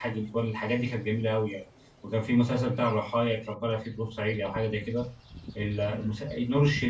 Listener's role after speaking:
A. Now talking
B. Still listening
B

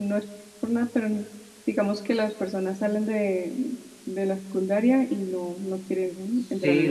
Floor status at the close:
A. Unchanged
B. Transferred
B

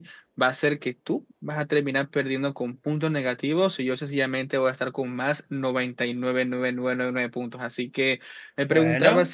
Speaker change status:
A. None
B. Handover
A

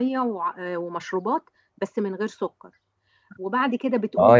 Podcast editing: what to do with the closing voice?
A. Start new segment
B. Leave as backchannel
A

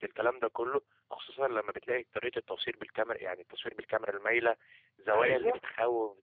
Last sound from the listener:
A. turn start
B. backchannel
B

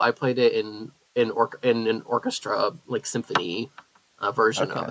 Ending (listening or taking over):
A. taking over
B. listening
A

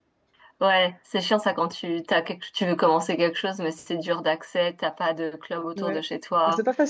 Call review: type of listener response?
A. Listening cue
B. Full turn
B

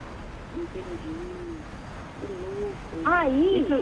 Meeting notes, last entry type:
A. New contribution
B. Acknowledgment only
B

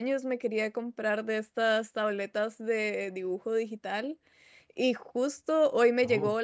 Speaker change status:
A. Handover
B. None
B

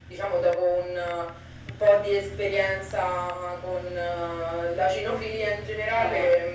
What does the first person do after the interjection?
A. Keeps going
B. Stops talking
A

